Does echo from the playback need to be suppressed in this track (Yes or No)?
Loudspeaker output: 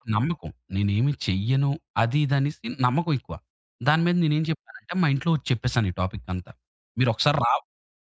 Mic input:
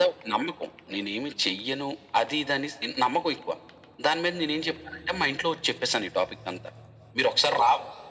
Yes